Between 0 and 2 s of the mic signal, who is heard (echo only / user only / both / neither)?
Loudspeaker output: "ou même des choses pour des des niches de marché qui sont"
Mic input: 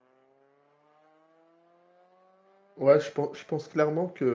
neither